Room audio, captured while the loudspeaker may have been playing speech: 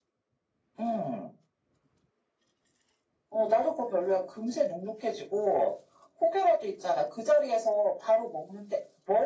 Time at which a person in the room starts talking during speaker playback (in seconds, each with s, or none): none